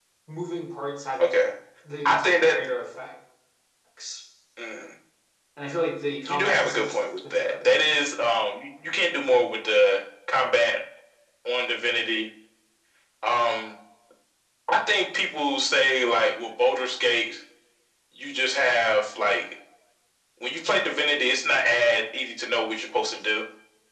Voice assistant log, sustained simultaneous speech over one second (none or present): present